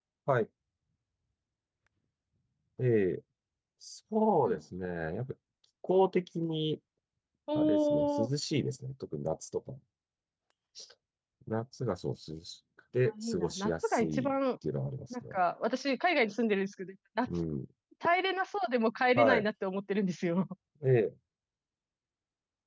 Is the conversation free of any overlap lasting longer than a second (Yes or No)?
No